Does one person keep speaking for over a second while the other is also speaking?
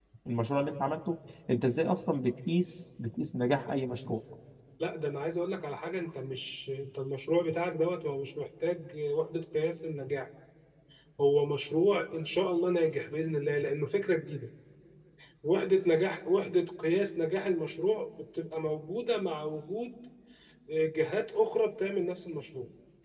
No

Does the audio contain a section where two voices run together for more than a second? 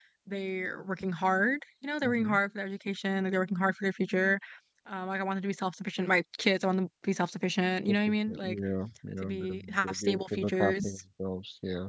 Yes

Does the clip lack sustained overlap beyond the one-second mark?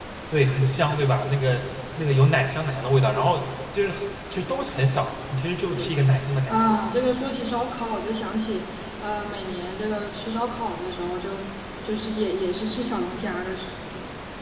Yes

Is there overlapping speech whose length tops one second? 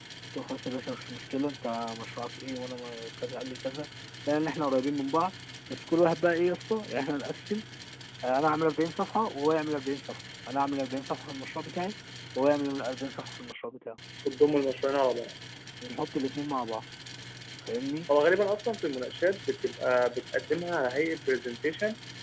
No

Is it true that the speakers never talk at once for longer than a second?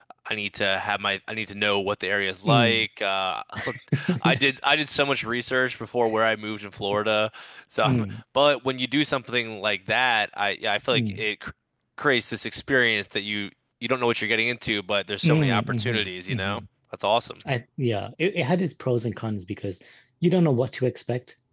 No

